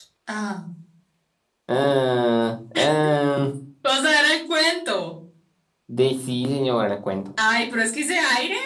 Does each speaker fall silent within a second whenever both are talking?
Yes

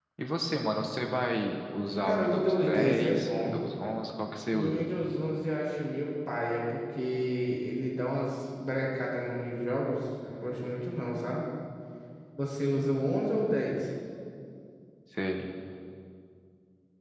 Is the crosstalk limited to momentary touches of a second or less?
No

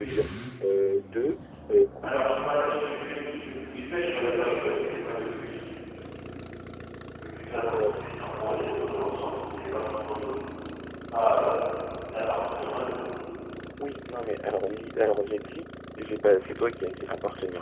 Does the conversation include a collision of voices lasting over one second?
No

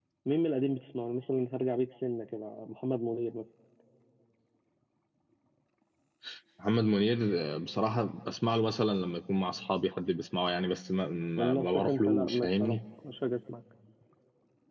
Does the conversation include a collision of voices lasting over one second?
Yes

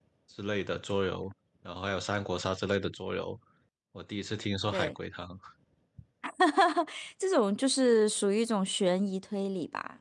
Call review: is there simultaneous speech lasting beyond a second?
No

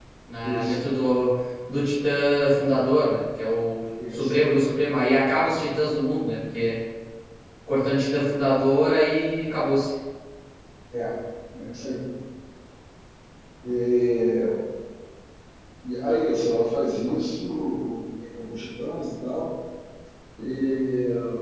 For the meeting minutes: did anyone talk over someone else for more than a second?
No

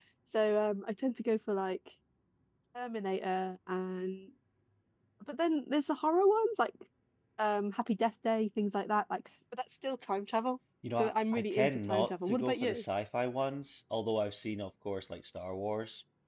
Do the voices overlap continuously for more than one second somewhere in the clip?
Yes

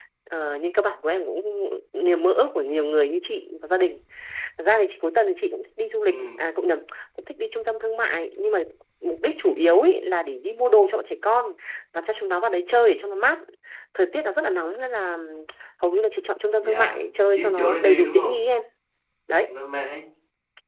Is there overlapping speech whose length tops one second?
Yes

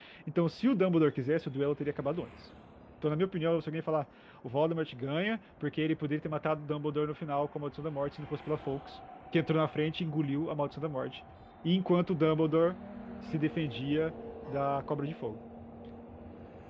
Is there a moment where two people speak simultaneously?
No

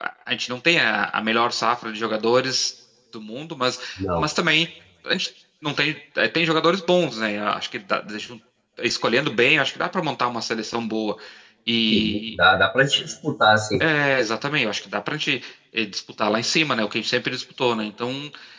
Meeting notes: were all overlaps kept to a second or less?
Yes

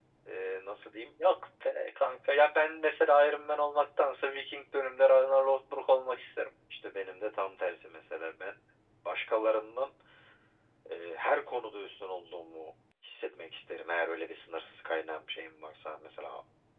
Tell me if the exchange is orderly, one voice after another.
Yes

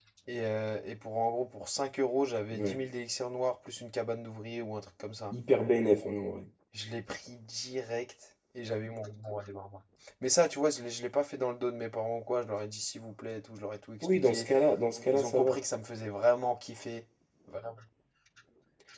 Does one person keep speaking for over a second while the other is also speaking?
No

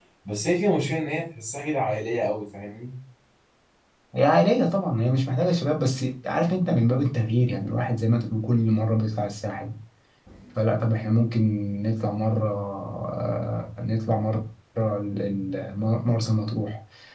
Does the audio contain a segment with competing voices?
No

